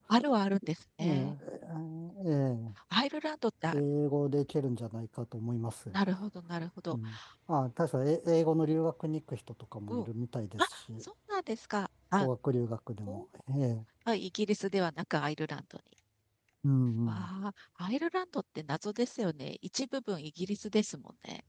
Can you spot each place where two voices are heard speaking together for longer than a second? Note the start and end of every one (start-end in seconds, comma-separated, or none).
none